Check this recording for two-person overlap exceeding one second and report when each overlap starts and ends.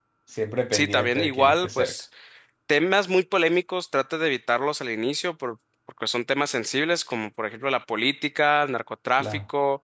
0.7-1.9

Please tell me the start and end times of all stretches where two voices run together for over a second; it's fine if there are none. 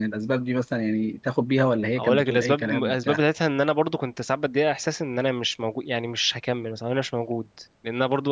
2.0-3.2

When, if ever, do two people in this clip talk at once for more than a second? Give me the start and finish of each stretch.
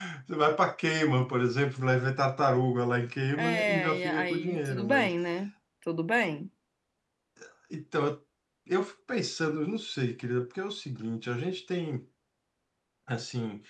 3.4-5.1

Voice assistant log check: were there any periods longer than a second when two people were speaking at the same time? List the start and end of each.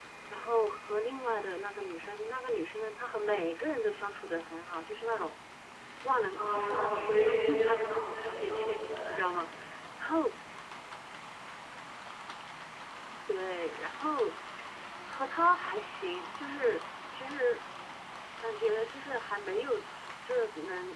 6.3-9.2

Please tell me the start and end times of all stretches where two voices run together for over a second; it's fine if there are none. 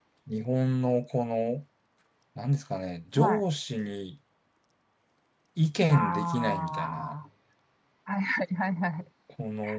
5.9-7.1

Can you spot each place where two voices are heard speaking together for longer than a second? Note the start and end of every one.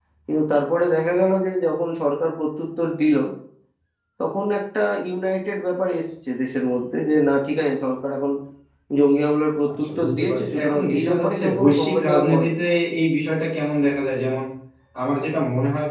9.8-12.5

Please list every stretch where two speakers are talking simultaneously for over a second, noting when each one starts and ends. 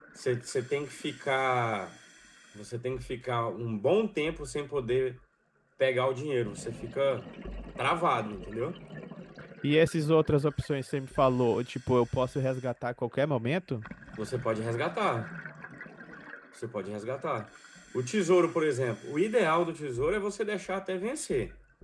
none

